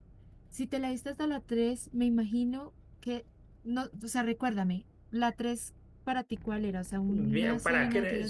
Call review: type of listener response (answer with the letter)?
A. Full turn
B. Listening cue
A